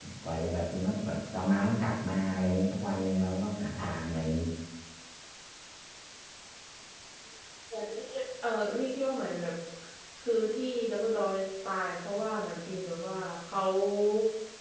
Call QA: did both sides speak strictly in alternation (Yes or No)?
Yes